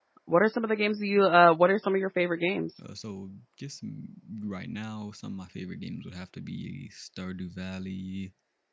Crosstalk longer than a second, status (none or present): none